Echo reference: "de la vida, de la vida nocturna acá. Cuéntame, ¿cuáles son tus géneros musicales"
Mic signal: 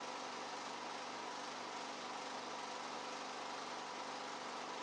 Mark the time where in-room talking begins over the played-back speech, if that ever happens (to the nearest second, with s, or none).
none